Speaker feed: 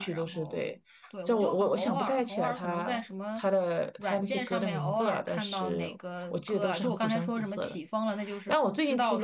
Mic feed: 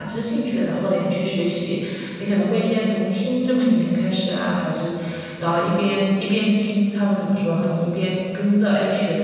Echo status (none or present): none